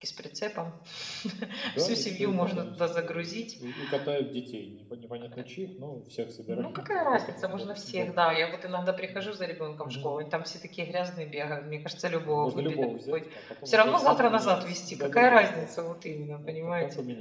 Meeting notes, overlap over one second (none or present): present